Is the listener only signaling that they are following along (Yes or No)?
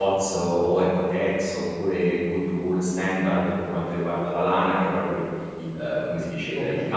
Yes